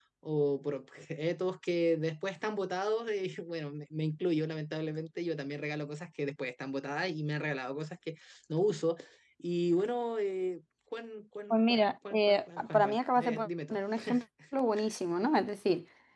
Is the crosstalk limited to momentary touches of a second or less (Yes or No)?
No